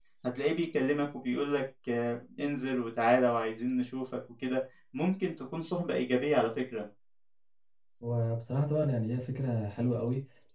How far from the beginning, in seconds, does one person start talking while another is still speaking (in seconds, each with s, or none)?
none